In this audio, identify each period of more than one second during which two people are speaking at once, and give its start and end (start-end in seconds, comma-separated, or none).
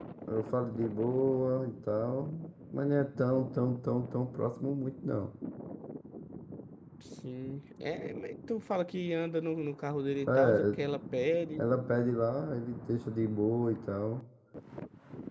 none